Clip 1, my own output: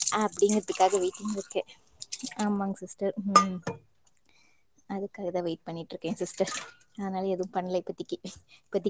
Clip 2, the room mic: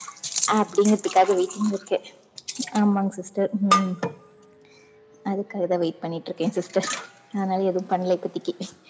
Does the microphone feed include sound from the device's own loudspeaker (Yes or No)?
Yes